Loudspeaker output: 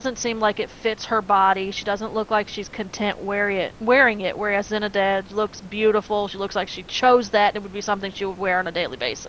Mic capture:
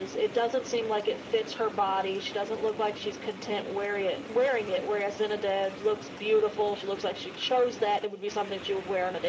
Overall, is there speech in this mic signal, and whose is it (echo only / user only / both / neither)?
echo only